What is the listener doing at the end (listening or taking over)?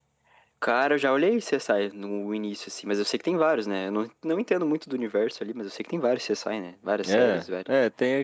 taking over